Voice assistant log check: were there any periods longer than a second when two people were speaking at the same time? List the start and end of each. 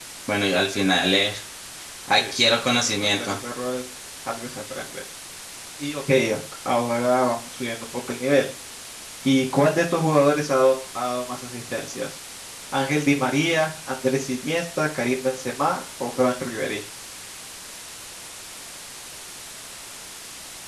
2.2-3.4

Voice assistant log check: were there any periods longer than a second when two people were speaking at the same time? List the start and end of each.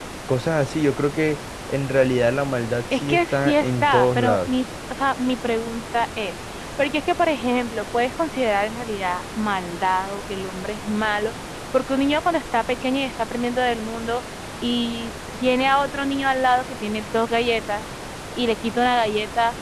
2.9-4.5

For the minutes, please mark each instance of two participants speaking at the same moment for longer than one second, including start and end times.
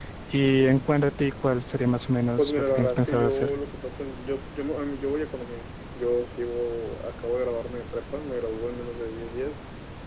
2.4-3.6

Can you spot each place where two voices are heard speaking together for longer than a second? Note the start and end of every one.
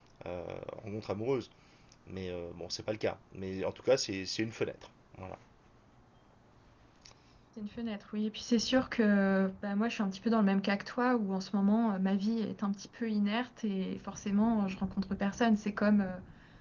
none

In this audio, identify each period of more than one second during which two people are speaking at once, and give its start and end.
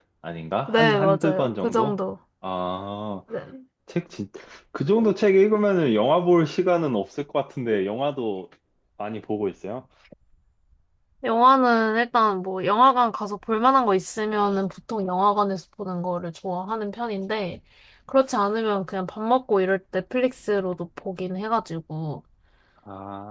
0.7-2.0

